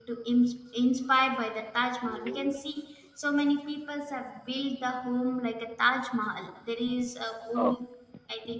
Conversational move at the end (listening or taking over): listening